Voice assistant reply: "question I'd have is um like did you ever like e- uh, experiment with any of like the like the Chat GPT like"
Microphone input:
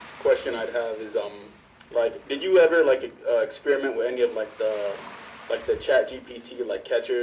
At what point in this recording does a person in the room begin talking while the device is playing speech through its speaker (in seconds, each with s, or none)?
none